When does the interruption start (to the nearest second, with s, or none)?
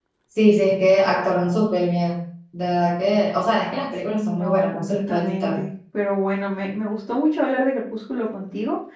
4 s